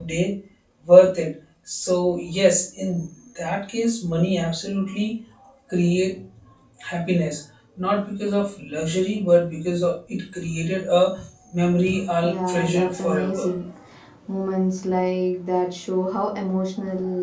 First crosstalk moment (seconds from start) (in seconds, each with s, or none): 12.2 s